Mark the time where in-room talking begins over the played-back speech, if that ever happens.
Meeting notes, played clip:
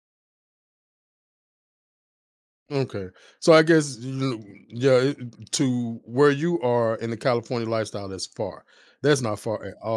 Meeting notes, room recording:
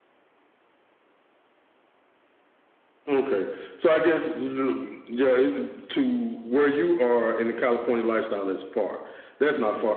none

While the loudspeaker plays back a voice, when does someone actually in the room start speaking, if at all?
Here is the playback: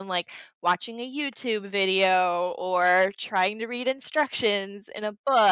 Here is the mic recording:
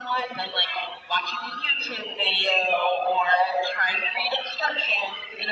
none

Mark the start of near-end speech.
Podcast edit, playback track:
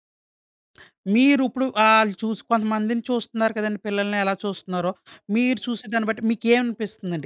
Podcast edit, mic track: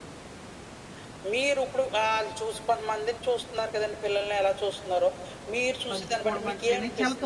5.9 s

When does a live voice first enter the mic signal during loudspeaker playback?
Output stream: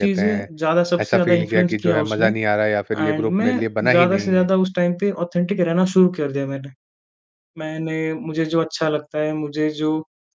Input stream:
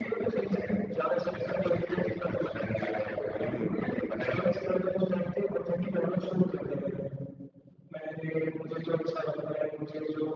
3.4 s

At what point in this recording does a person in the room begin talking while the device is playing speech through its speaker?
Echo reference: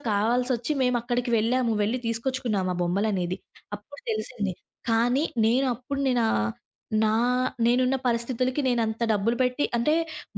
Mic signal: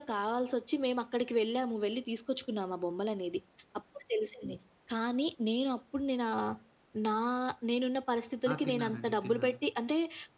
8.5 s

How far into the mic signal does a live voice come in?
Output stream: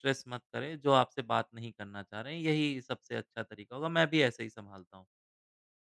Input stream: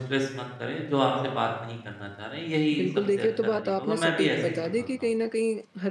2.8 s

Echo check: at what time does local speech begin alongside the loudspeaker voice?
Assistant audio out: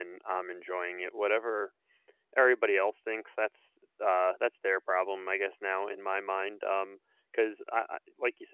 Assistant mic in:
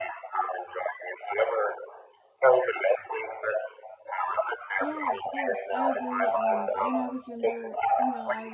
4.8 s

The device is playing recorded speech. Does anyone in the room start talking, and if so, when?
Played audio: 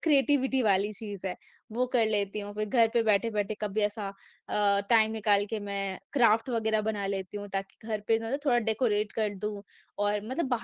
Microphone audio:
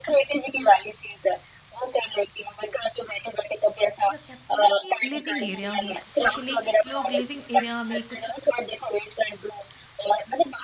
4.1 s

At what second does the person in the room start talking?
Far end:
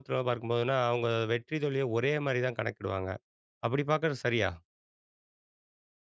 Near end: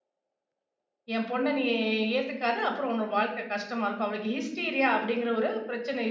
1.2 s

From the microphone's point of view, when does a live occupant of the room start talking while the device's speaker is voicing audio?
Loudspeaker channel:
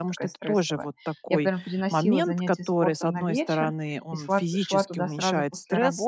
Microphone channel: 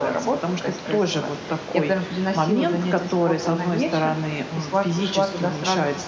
none

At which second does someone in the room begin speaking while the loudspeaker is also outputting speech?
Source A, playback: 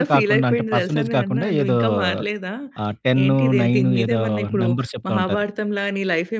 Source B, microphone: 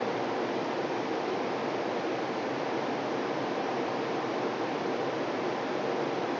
none

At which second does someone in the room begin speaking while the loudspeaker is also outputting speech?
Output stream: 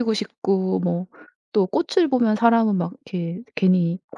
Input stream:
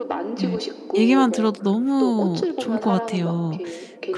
0.4 s

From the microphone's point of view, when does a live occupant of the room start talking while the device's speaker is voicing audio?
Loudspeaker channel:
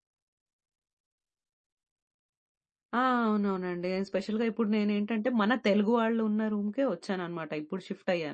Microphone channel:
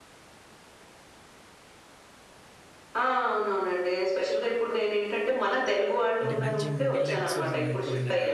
6.2 s

